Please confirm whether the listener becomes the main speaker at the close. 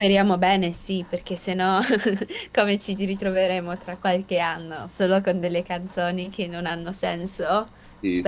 Yes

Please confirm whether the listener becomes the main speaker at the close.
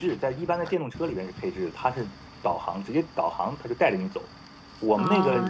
Yes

